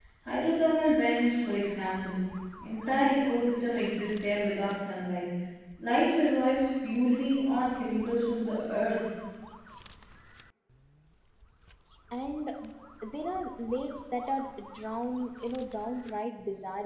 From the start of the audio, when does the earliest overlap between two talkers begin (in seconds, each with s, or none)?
none